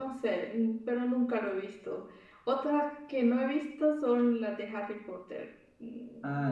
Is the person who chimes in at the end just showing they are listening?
No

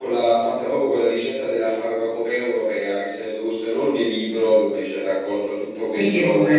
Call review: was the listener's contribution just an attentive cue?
No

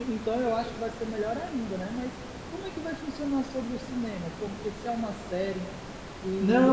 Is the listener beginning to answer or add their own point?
Yes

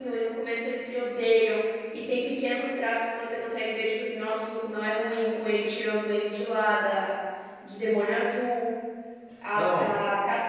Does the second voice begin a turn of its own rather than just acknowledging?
No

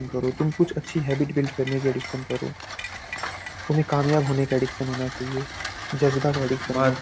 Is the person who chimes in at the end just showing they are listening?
No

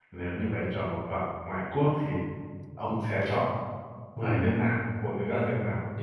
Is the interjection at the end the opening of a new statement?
Yes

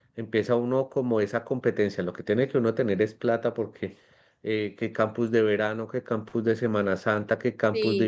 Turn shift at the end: No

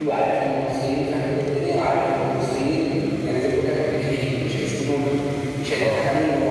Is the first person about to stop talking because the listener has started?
No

